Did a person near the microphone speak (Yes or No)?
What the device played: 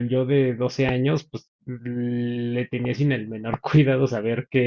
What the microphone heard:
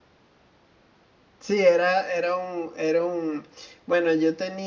Yes